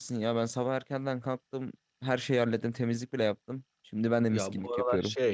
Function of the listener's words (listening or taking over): taking over